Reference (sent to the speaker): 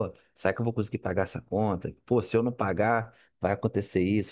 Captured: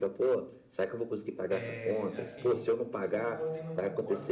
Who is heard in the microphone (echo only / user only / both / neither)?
both